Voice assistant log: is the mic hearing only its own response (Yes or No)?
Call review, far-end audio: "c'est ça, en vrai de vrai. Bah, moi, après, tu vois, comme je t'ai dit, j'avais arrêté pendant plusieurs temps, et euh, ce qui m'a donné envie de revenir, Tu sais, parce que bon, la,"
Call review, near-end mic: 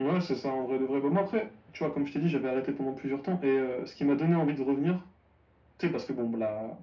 Yes